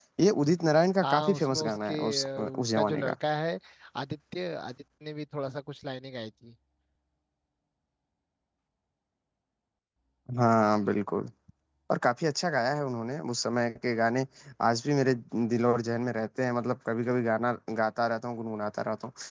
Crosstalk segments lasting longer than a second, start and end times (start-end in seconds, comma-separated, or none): 1.0-3.1